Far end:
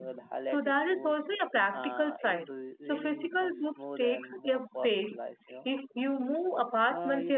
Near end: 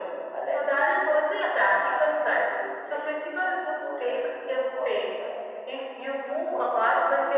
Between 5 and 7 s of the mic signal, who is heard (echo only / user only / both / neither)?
echo only